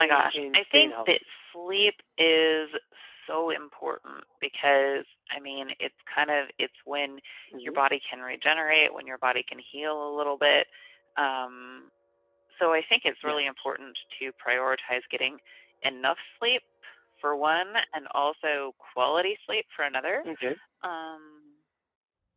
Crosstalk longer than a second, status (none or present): present